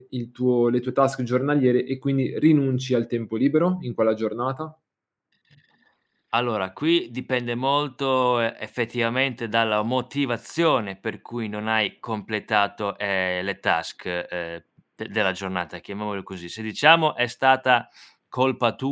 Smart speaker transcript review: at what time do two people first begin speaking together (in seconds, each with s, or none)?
none